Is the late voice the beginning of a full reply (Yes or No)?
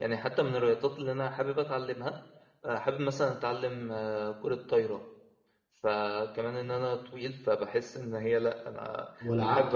Yes